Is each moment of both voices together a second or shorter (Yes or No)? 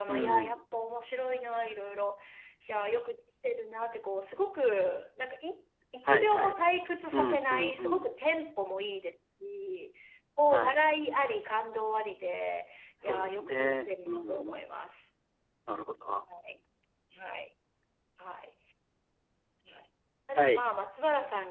No